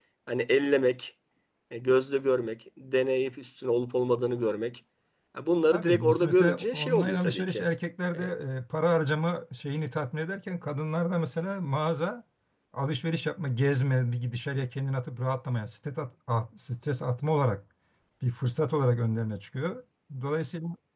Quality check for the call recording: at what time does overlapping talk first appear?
5.7 s

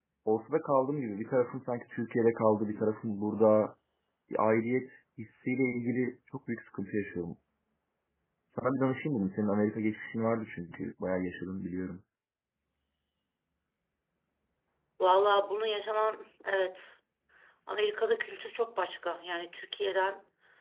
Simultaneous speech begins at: none

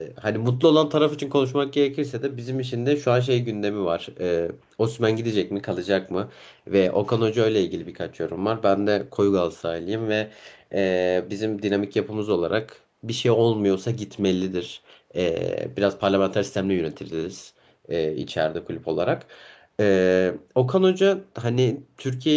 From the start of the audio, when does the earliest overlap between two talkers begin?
none

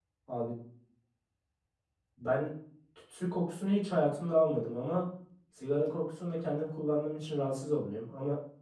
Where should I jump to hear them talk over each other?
none

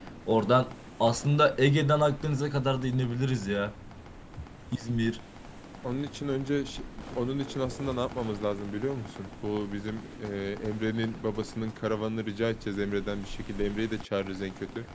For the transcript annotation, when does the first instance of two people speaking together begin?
none

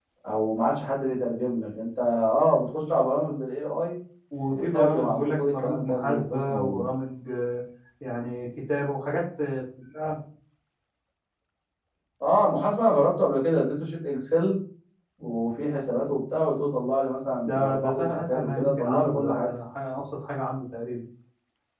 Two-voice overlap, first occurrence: 4.5 s

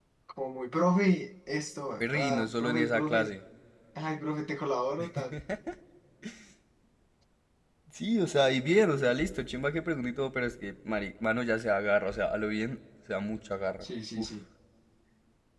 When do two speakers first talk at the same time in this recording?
2.0 s

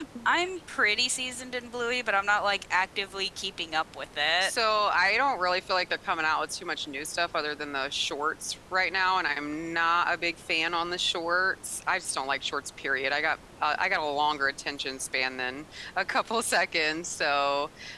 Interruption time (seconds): none

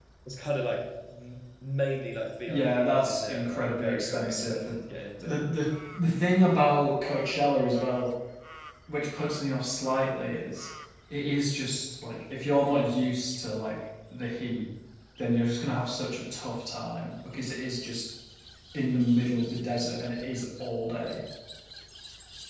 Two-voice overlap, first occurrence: 2.5 s

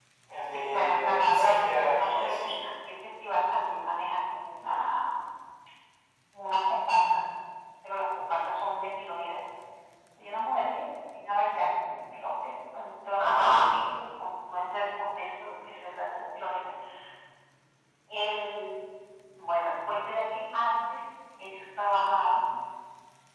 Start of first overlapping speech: 0.5 s

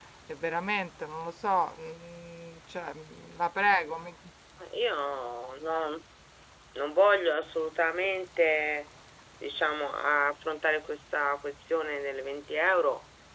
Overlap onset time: none

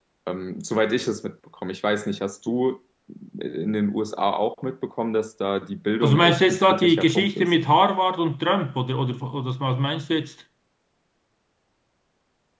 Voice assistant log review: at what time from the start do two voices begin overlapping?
6.0 s

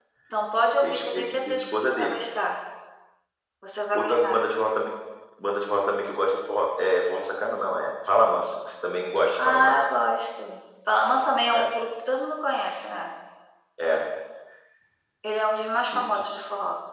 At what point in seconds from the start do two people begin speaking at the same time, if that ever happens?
0.8 s

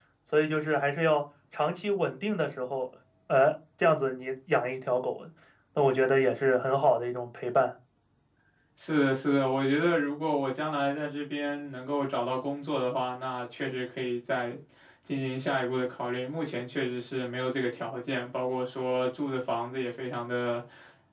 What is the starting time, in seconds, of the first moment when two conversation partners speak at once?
none

